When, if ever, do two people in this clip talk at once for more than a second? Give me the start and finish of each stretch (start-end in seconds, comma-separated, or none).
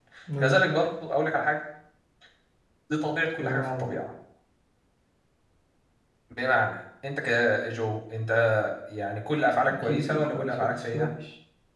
9.8-11.1